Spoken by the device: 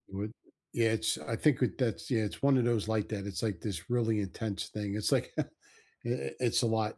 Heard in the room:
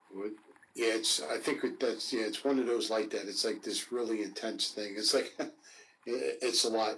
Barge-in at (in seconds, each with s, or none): none